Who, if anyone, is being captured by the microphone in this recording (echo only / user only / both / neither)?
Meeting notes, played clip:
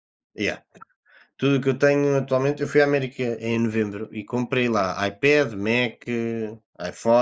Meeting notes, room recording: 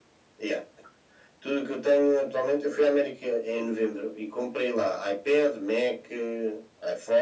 echo only